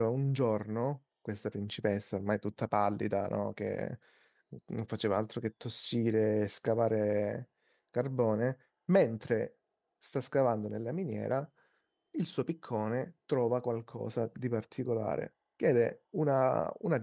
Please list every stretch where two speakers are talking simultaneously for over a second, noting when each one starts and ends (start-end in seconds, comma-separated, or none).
none